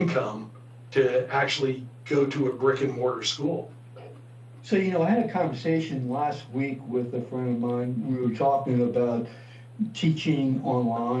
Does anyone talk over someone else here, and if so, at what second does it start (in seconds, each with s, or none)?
none